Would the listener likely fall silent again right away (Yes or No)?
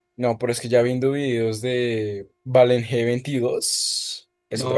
No